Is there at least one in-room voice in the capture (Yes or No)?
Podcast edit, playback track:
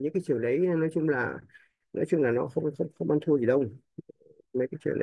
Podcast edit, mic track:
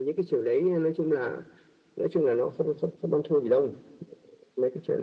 No